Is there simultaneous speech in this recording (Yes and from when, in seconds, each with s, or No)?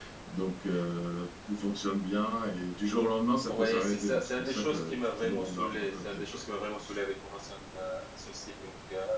Yes, from 3.5 s